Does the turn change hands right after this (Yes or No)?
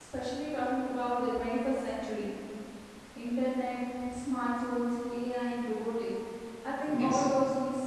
No